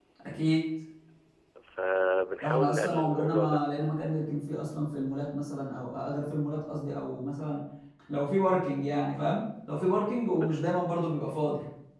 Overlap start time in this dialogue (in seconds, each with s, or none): 2.4 s